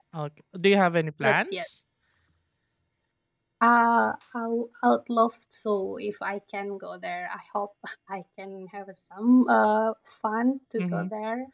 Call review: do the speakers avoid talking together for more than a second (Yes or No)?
Yes